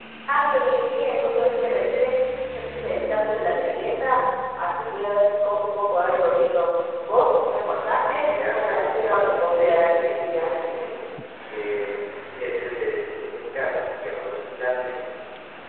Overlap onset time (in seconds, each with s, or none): 8.0 s